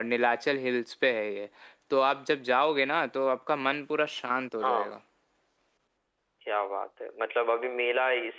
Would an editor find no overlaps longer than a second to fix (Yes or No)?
Yes